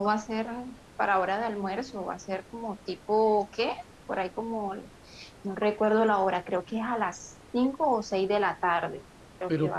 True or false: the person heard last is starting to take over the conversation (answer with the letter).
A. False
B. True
B